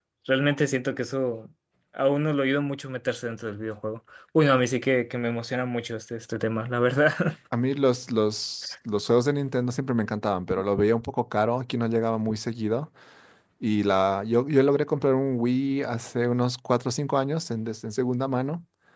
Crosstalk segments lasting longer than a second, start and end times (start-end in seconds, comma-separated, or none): none